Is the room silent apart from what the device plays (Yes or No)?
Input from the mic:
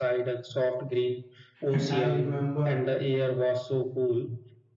No